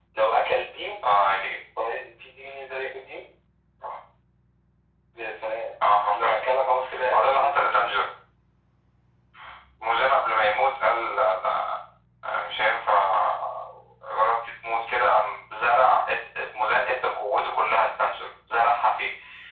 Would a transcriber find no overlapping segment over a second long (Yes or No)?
Yes